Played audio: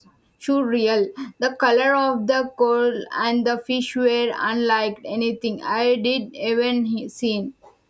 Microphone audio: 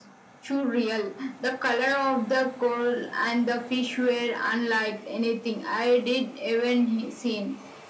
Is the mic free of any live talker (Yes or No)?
Yes